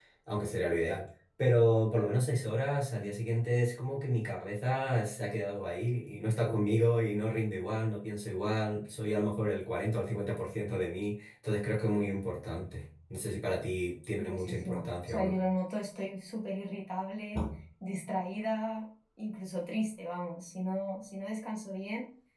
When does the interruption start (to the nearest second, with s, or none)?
14 s